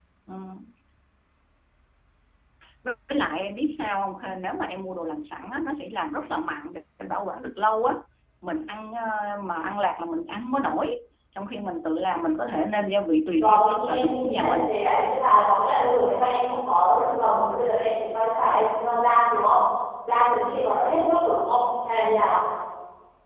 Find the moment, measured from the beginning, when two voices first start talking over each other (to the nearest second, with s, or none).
13 s